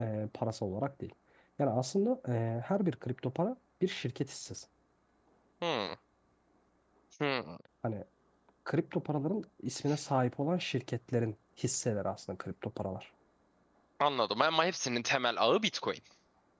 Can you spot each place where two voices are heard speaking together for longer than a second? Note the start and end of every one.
none

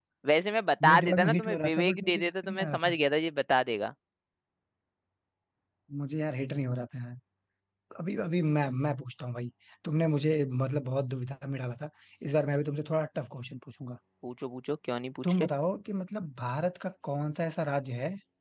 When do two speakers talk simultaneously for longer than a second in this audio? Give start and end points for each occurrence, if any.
0.8-2.9

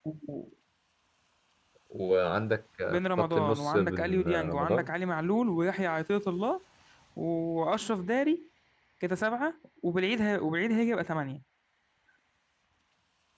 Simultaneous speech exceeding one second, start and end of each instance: 2.9-4.9

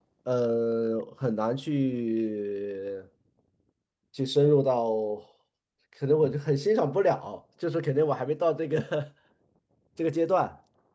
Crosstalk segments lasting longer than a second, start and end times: none

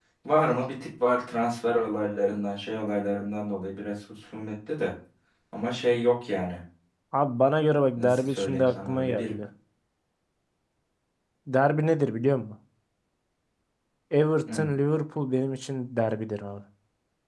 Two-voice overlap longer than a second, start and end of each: 7.9-9.3

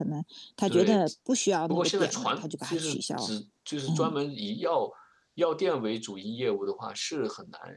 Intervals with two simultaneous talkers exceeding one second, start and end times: 1.7-3.3

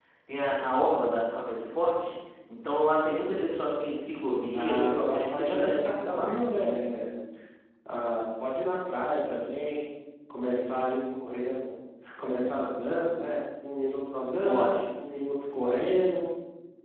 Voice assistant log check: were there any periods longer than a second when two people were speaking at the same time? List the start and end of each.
4.5-6.3

